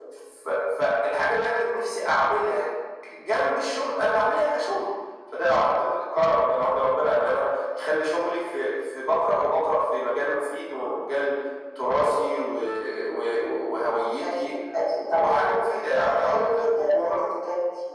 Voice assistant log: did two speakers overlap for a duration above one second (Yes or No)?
Yes